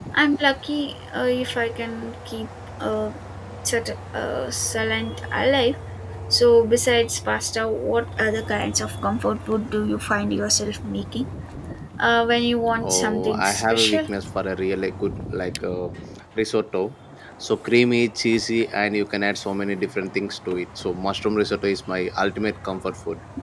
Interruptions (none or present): present